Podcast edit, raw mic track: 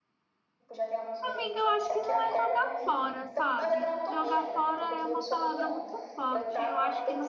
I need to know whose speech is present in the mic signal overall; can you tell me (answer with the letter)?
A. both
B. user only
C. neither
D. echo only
A